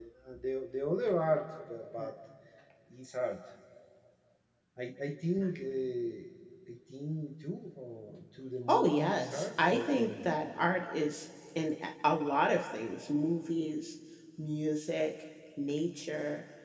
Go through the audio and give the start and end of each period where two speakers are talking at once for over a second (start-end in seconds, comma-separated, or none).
8.7-10.3